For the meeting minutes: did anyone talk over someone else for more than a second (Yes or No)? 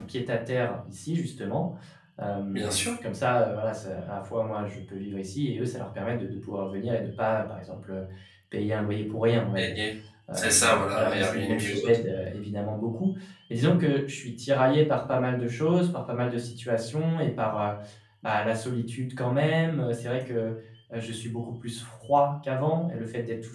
Yes